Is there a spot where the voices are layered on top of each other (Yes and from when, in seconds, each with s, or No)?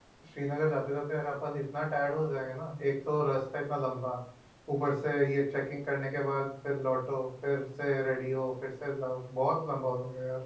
No